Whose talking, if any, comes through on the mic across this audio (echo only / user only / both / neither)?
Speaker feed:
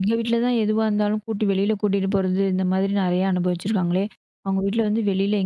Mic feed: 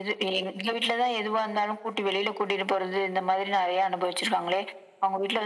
echo only